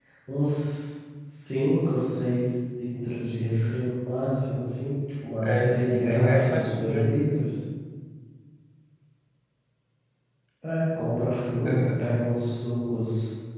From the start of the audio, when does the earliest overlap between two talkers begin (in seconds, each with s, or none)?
5.4 s